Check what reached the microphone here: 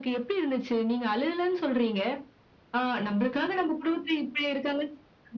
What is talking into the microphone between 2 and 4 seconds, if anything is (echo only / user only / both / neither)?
echo only